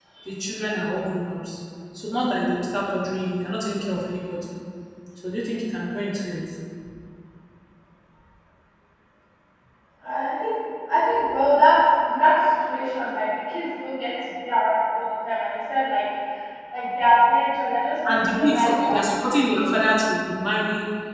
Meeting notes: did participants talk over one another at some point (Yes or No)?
Yes